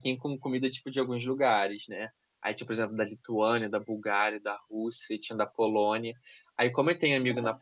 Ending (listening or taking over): listening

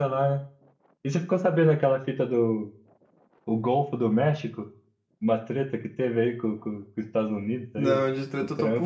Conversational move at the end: taking over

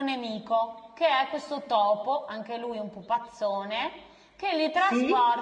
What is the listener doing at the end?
listening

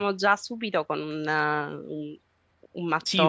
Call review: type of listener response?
taking over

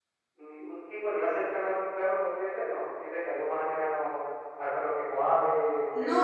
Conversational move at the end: taking over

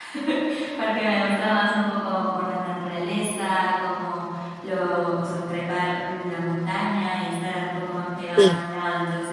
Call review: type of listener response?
listening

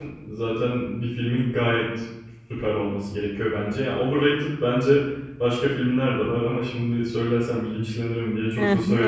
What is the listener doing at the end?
taking over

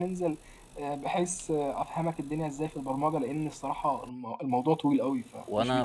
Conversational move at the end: taking over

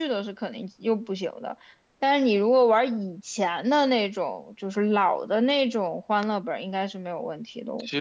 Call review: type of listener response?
taking over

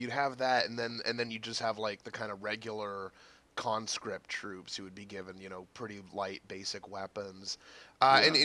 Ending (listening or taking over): listening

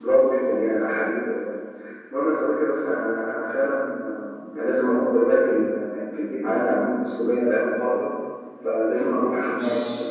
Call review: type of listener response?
listening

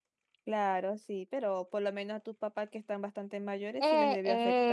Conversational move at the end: taking over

